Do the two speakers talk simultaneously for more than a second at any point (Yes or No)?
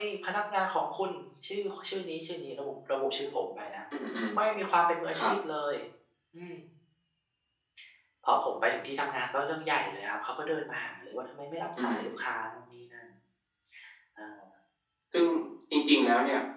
No